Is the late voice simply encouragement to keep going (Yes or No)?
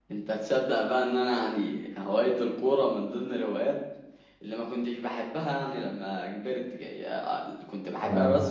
Yes